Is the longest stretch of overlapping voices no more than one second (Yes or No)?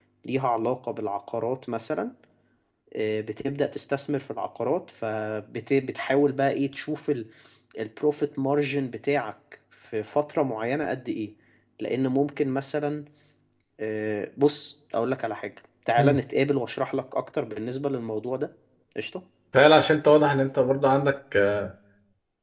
Yes